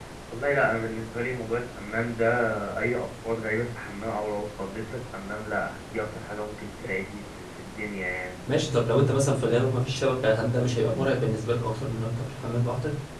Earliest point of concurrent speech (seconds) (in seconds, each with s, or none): none